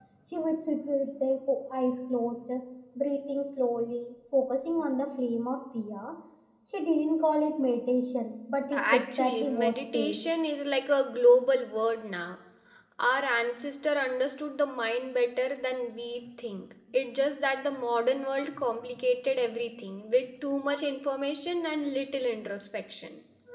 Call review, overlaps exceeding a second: present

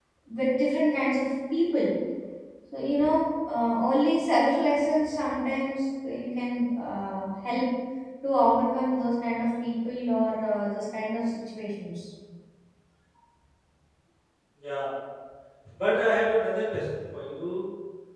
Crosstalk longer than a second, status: none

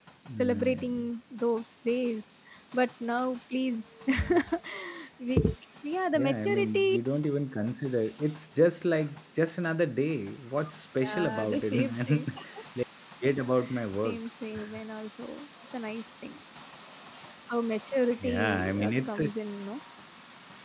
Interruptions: present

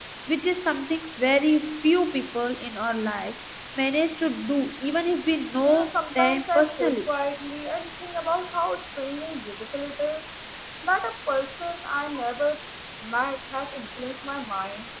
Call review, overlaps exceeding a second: present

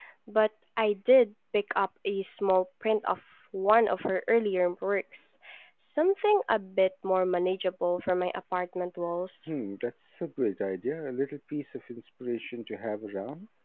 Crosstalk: none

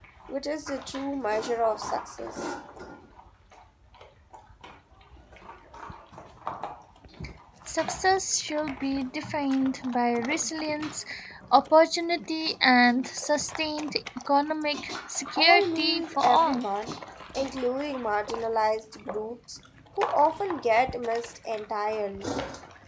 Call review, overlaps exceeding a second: present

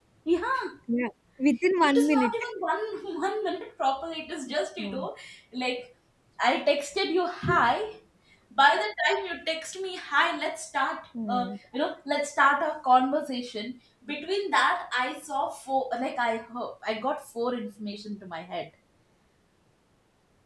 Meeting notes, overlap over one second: none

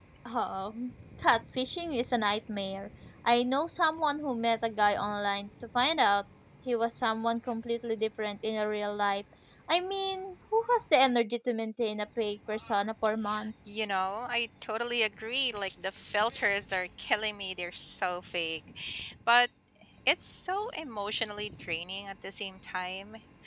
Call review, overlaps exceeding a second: none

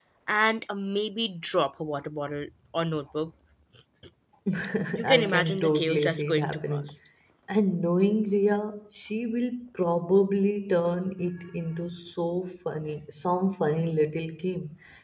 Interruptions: present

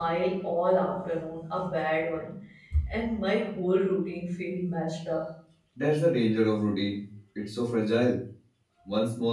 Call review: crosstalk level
none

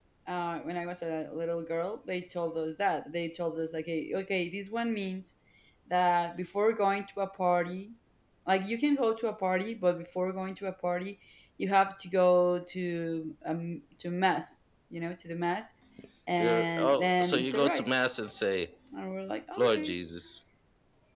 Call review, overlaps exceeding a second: present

